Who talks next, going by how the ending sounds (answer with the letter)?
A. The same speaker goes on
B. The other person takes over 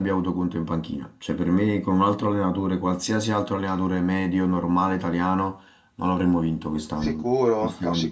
B